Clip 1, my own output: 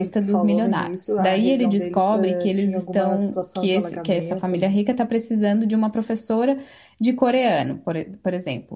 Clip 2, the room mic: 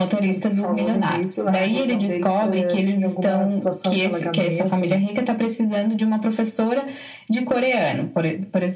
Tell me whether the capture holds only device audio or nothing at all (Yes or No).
Yes